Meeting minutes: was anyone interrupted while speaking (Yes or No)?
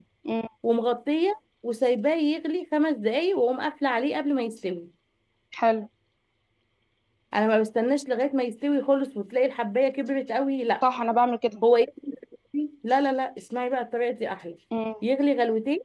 No